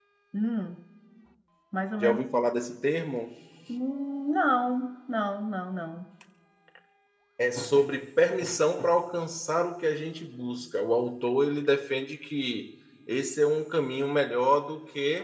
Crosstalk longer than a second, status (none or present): none